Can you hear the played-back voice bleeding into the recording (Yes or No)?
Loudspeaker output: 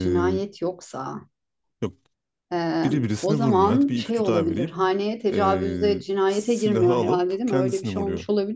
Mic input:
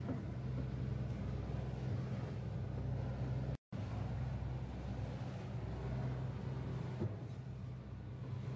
No